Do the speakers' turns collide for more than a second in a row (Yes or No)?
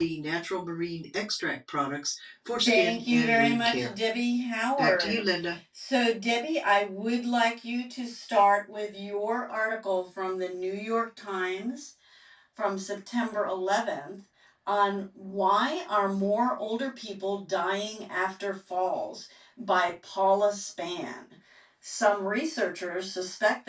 Yes